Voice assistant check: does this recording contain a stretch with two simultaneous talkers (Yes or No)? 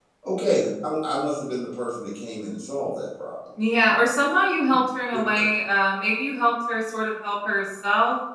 No